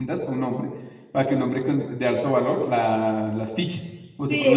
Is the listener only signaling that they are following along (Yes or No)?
No